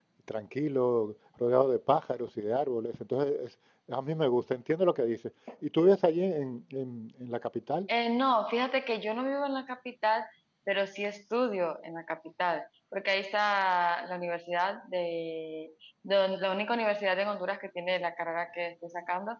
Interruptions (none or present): none